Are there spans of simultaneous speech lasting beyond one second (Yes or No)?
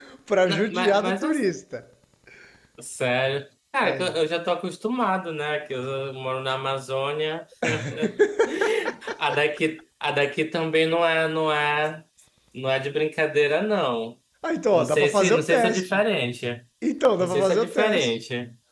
Yes